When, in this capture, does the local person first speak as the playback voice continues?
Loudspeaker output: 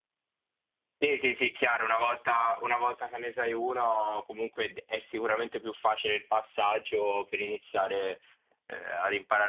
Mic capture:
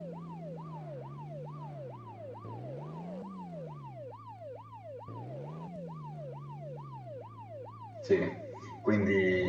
8.0 s

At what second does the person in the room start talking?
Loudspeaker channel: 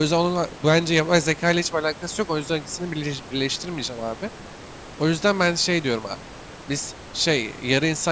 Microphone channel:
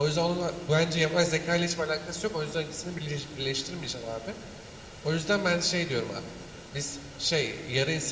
none

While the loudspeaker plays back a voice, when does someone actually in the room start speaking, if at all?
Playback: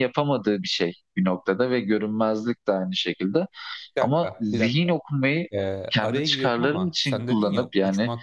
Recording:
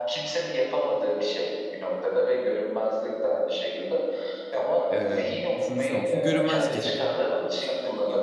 4.9 s

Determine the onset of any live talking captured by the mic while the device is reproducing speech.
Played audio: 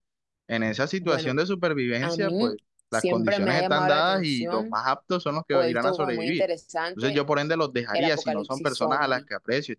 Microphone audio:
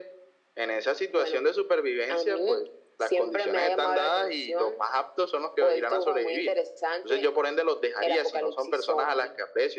none

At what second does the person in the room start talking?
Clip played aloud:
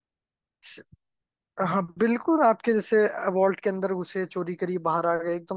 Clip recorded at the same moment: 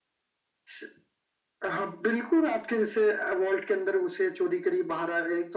none

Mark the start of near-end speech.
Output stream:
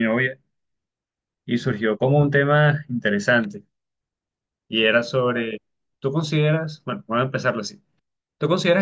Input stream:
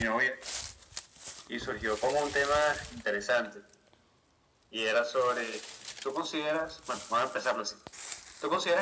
none

